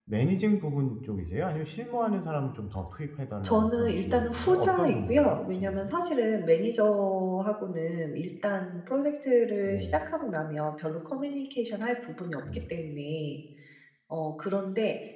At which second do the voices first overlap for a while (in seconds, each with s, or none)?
3.4 s